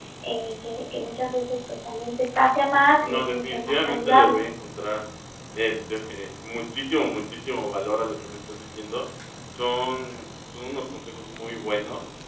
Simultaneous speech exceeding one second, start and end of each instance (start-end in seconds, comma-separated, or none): 3.0-4.4